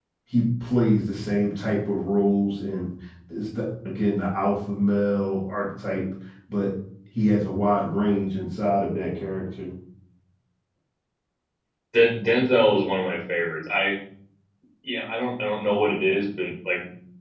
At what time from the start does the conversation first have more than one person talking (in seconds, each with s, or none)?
none